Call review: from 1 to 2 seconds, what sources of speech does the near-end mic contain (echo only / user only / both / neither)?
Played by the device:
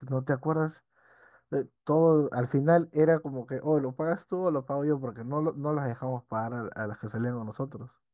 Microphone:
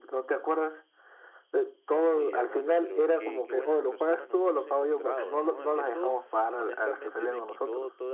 echo only